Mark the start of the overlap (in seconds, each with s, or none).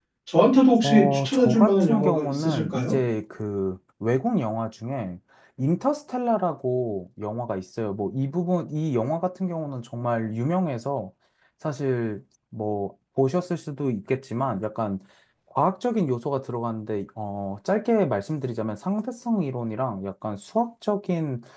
0.8 s